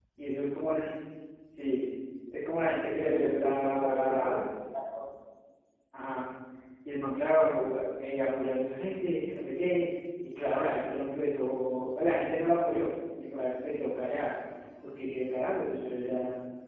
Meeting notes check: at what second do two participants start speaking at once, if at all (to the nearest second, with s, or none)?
3 s